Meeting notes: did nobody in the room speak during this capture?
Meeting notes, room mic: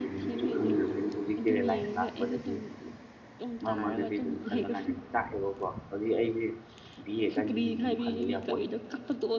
No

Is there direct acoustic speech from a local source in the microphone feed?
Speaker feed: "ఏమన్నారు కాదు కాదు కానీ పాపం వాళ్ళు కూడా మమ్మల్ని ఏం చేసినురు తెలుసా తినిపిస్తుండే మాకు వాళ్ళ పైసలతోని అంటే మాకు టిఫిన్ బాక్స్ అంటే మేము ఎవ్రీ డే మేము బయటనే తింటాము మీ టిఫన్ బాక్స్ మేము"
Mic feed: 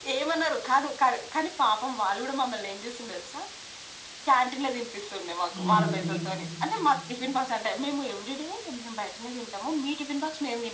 Yes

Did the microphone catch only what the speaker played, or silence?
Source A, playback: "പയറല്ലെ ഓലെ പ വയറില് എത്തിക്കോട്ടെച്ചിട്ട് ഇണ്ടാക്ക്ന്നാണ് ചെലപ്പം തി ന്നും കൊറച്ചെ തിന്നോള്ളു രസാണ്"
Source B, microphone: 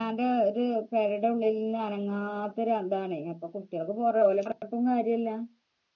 No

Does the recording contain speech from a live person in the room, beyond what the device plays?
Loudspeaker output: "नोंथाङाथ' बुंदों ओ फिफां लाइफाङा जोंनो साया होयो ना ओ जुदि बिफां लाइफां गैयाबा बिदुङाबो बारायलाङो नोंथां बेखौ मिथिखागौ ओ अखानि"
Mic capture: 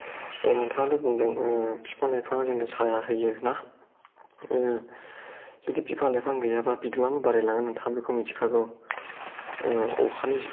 No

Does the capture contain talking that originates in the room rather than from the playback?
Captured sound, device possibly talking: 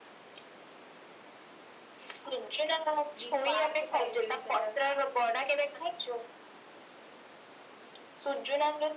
Yes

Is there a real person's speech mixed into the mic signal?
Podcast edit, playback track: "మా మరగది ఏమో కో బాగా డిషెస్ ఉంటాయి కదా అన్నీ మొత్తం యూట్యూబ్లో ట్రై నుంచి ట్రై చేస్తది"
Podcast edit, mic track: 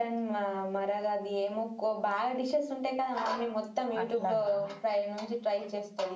Yes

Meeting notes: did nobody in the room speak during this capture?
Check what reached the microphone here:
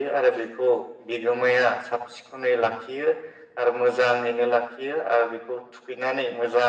Yes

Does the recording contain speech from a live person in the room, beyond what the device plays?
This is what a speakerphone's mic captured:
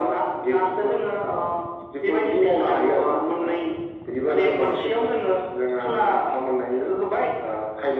No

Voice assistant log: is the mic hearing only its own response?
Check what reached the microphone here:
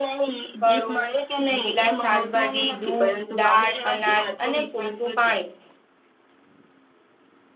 No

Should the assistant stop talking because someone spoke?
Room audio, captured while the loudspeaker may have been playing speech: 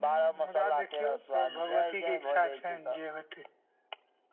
No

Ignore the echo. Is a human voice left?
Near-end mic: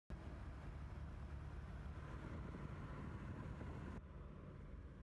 No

